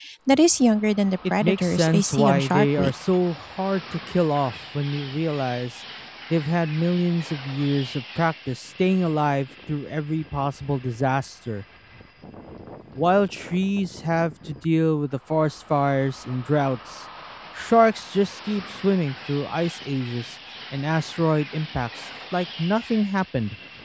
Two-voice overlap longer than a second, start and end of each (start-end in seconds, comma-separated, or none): 1.4-2.9